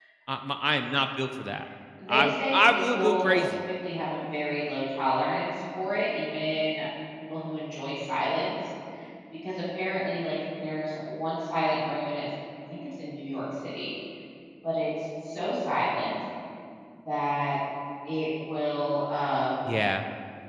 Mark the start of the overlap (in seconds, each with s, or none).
2.1 s